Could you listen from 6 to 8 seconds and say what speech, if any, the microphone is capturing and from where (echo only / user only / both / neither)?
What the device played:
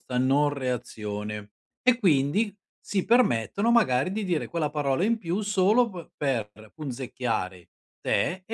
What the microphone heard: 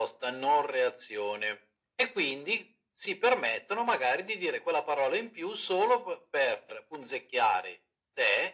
echo only